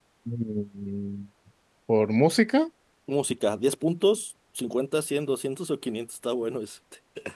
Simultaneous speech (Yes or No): No